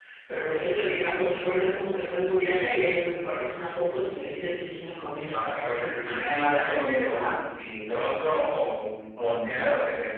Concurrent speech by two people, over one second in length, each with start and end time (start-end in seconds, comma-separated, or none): 5.3-7.3